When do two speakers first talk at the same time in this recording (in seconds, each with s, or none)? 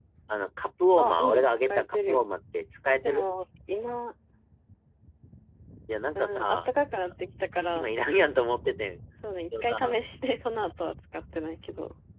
1.0 s